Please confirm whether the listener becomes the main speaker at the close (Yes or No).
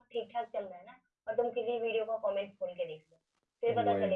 No